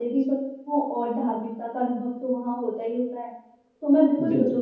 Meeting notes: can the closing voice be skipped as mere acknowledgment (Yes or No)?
Yes